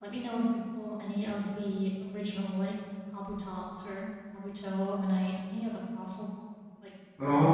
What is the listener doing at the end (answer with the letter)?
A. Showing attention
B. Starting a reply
B